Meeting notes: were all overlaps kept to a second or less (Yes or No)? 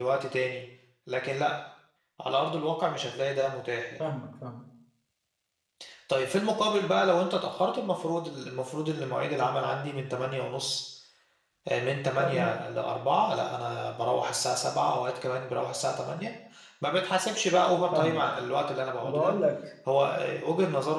Yes